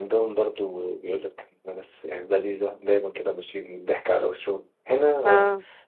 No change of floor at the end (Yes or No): Yes